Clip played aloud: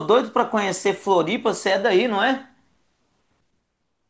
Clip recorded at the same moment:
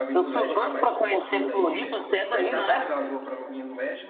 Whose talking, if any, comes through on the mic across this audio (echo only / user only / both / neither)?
both